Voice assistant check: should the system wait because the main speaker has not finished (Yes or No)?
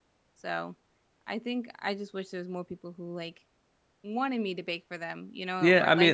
No